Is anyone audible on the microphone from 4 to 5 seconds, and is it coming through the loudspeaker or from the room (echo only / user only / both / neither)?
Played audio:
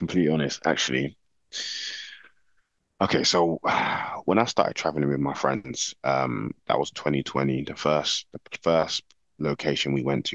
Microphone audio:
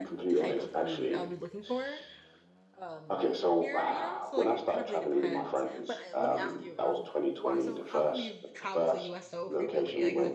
both